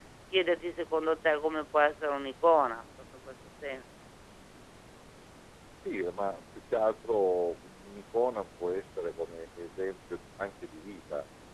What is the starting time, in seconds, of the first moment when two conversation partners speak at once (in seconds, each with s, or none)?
none